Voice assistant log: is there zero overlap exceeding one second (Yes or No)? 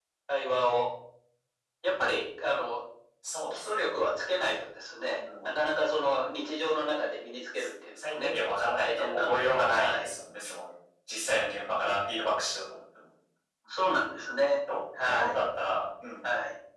No